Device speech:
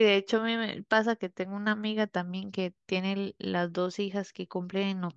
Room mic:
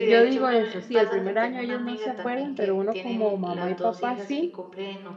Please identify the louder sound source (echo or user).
user